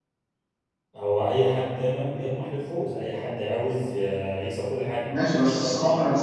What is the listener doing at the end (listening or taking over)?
taking over